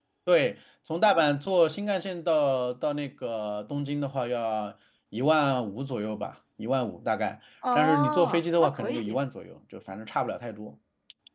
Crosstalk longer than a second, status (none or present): present